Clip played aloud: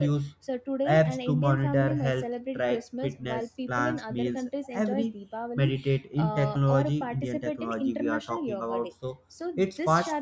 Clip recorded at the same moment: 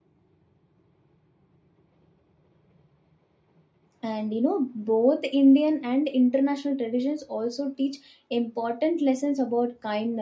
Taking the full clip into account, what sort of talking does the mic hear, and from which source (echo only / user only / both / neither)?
user only